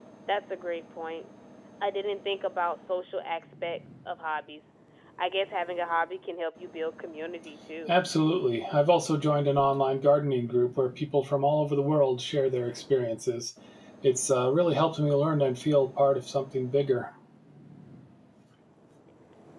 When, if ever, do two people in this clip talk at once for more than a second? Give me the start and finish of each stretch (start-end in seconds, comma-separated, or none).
none